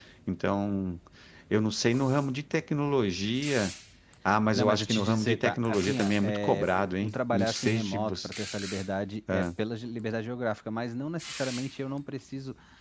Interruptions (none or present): present